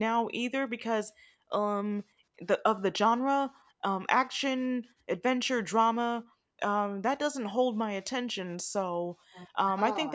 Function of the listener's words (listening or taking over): listening